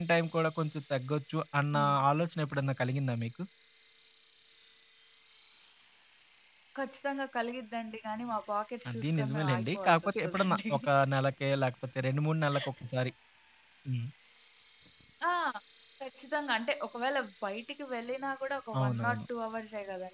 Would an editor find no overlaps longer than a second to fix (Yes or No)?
No